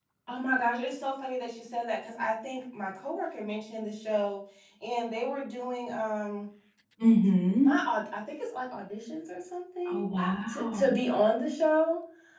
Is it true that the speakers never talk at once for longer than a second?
Yes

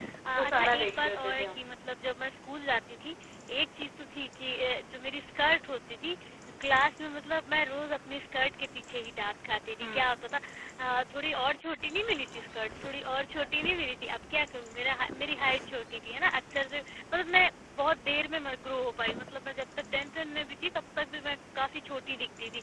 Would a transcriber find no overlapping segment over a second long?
No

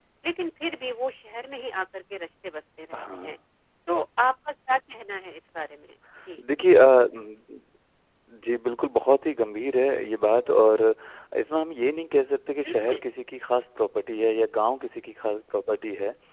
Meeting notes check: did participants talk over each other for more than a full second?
No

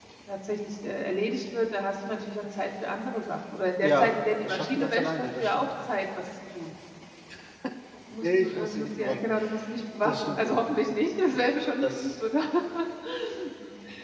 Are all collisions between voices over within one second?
No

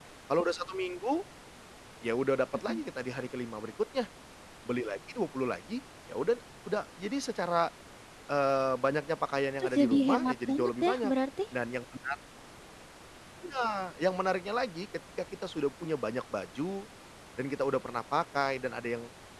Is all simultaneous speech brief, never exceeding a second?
No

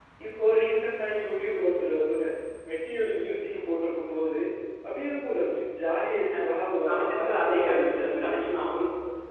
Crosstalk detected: Yes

